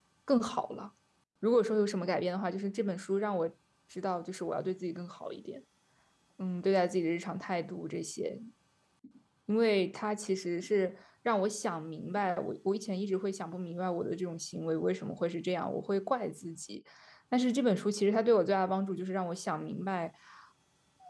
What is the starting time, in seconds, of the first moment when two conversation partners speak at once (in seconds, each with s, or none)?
none